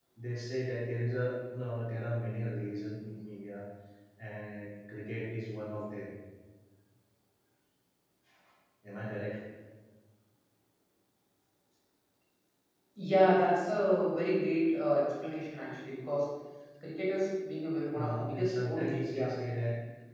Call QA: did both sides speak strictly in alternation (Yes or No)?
No